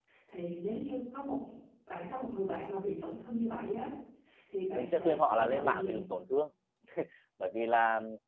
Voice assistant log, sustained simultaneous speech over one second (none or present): present